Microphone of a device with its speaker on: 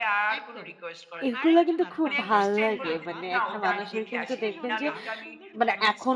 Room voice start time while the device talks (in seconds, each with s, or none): 1.2 s